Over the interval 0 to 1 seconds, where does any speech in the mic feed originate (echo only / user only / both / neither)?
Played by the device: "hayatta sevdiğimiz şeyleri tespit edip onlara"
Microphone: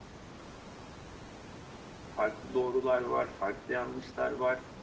neither